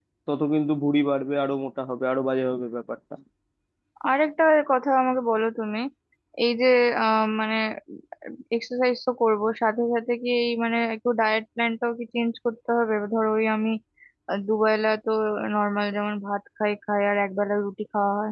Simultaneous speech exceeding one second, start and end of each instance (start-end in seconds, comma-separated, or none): none